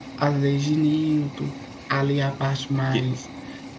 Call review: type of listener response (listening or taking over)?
listening